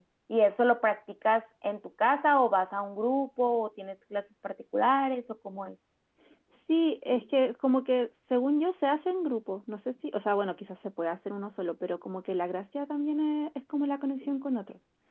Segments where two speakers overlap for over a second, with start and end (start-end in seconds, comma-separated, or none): none